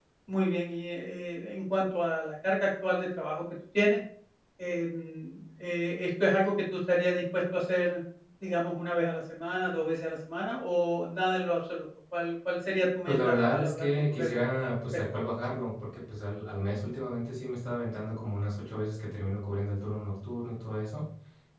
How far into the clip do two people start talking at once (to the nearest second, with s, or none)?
13 s